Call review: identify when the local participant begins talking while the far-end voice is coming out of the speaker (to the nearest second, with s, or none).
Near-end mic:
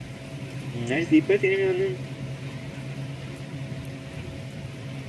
1 s